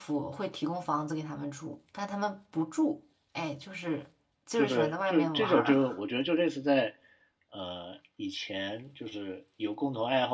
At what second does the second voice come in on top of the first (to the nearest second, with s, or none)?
5 s